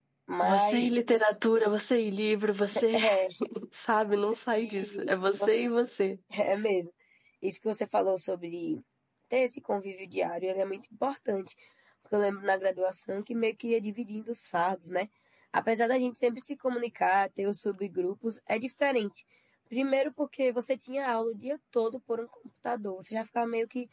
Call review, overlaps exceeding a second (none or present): present